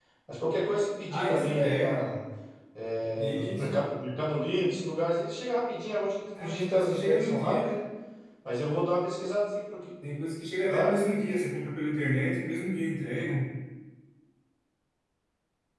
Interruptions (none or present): present